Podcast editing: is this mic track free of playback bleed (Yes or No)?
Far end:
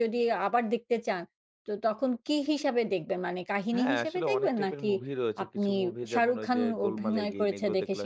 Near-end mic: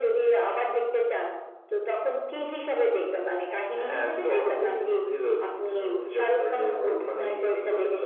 No